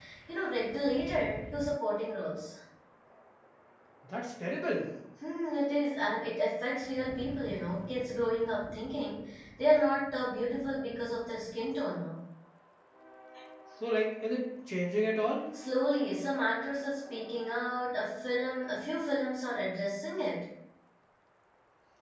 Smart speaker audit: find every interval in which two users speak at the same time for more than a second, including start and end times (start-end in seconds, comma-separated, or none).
none